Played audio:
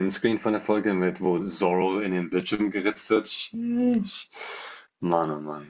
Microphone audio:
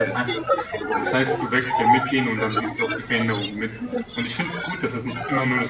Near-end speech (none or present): present